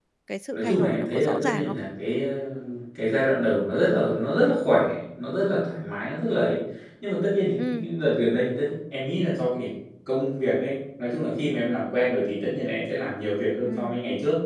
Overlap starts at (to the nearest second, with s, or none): 1 s